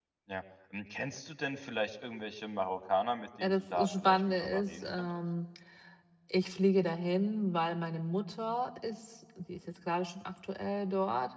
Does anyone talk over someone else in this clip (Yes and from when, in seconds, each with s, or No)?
Yes, from 3.4 s